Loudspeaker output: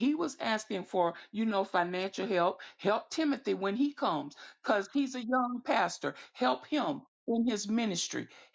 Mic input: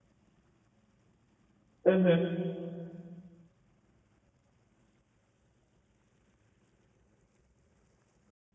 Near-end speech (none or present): present